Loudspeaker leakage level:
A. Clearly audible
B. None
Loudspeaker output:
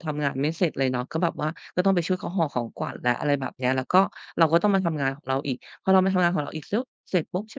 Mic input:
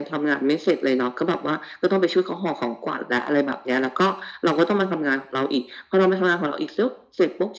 A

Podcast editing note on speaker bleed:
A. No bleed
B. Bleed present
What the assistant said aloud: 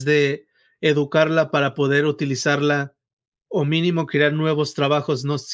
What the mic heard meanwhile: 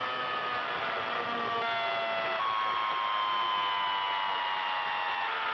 A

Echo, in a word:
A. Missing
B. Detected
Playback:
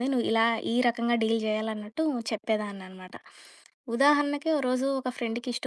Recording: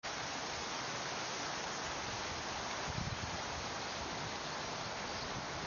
A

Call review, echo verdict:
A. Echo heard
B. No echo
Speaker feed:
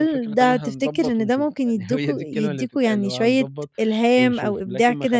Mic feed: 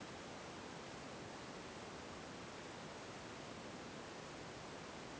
B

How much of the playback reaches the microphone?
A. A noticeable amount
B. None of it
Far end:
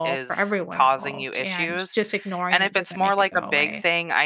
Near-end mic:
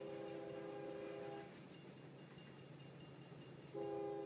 B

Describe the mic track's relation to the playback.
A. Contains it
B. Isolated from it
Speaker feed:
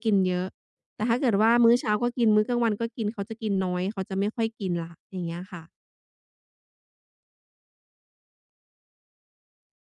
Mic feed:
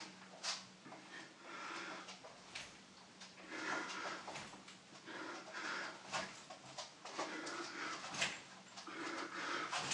B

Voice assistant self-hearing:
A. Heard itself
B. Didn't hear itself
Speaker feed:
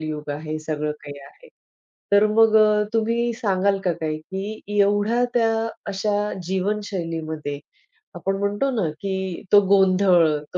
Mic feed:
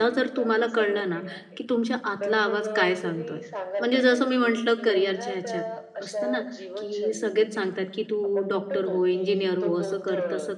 A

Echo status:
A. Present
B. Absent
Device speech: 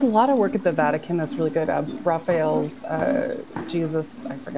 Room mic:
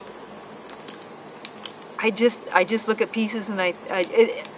B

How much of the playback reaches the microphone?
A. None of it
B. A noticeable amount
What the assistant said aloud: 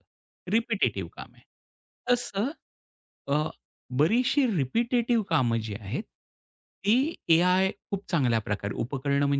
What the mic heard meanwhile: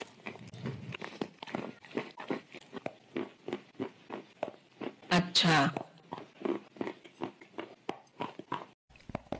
A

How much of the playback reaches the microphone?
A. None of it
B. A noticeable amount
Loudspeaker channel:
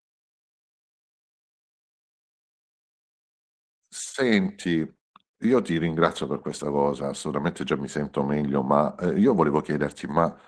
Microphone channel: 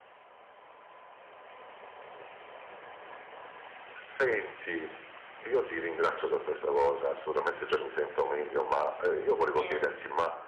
B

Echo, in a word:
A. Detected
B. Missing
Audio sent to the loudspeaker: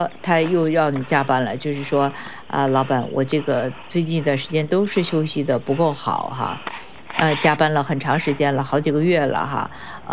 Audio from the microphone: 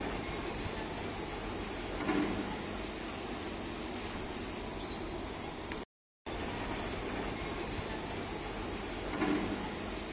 B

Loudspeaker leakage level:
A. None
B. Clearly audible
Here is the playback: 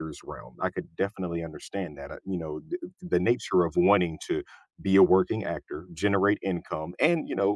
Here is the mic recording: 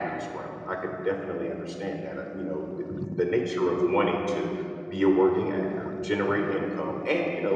B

